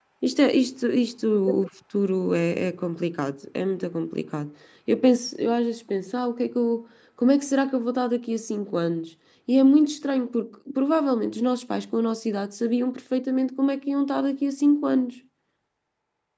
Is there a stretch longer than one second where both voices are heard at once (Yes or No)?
No